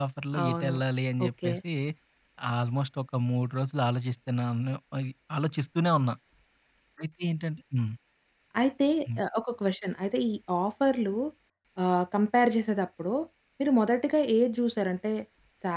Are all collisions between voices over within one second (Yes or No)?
Yes